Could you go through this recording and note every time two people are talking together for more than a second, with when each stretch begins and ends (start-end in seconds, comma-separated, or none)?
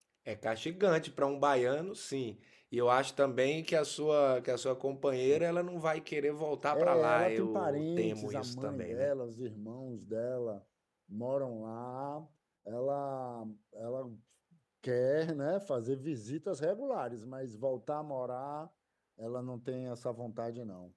6.7-9.1